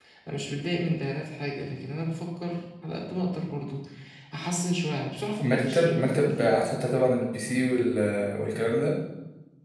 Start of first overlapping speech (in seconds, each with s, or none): 5.4 s